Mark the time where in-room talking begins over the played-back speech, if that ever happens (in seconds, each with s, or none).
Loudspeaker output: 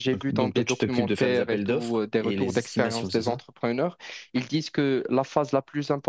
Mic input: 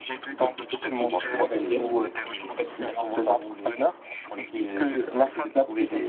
1.1 s